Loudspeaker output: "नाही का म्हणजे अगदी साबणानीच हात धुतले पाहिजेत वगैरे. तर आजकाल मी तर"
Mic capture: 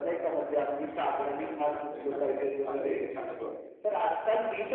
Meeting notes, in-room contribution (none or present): present